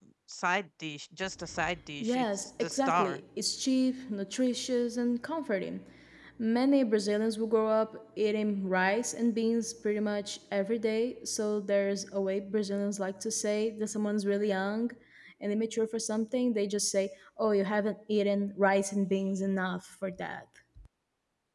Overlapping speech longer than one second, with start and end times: 2.0-3.2

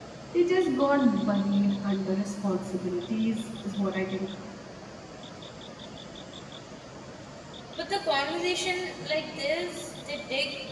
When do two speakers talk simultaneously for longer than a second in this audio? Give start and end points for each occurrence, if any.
none

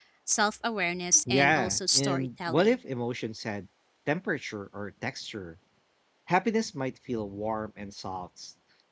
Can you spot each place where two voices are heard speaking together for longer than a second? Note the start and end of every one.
1.3-2.8

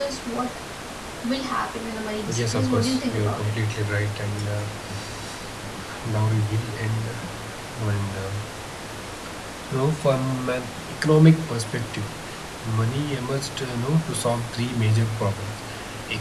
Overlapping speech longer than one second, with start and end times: 2.4-3.6

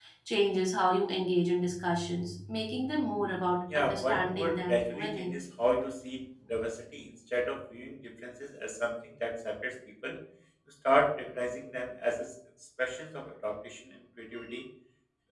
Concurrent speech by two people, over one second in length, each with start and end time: 3.8-5.3

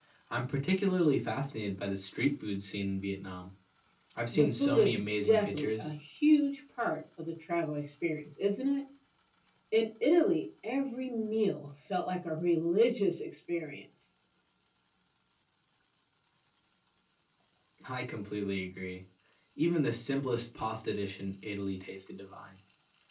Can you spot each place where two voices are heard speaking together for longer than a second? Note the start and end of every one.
4.3-5.9

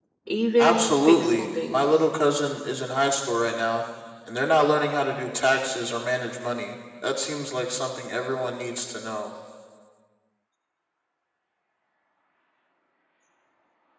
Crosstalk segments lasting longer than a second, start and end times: 0.6-1.8

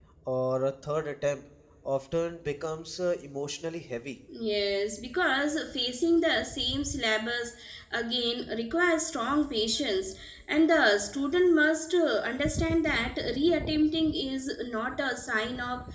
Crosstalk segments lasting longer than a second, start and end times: none

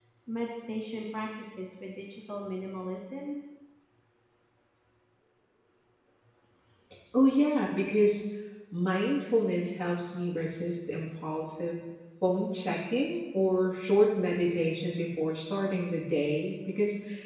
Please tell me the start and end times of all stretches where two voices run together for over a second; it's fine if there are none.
none

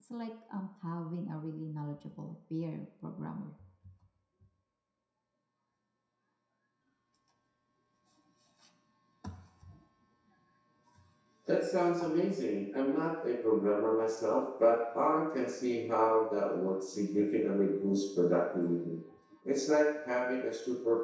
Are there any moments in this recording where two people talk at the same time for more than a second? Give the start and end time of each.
none

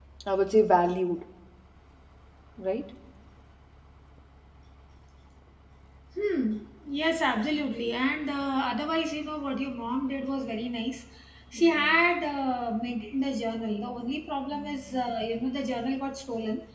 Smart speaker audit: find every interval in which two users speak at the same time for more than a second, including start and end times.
none

